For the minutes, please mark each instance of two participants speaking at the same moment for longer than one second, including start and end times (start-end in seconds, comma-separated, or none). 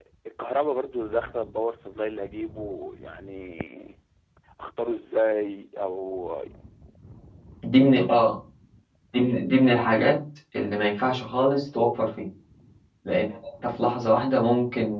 none